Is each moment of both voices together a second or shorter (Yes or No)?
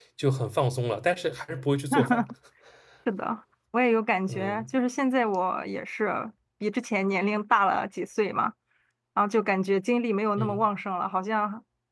Yes